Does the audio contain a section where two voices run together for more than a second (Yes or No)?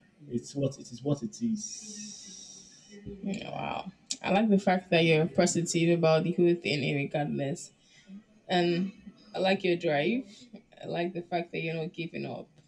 No